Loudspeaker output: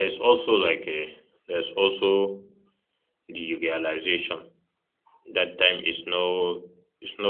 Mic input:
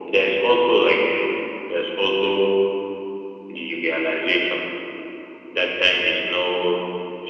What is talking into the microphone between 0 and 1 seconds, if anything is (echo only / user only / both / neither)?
echo only